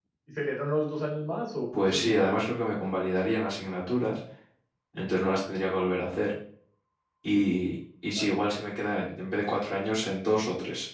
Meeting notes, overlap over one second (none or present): none